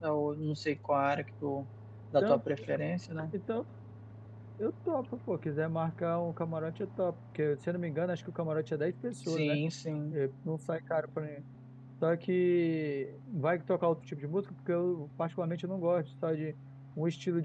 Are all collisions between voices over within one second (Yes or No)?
Yes